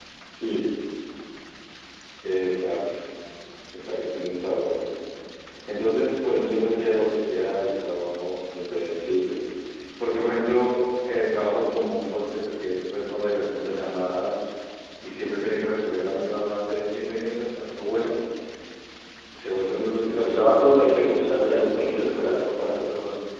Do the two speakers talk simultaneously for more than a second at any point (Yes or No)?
Yes